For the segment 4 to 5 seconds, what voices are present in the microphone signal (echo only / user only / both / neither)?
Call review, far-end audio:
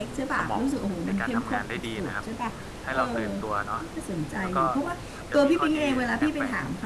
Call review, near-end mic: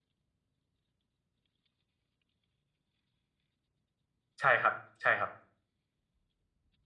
user only